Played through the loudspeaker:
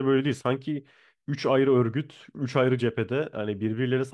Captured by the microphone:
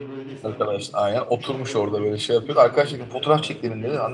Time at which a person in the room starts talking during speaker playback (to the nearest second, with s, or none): 0 s